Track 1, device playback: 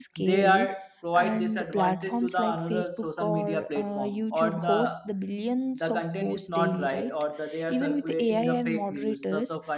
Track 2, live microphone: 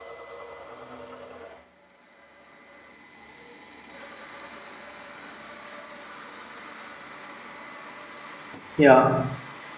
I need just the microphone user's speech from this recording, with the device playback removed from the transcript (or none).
Yeah.